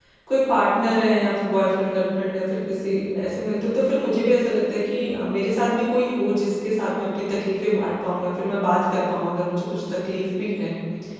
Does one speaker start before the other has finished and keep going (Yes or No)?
No